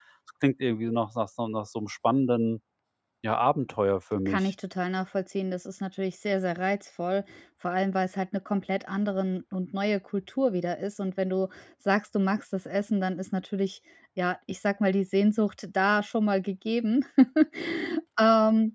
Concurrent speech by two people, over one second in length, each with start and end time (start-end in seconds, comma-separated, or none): none